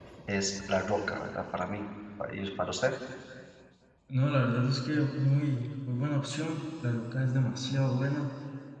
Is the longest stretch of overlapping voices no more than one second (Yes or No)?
Yes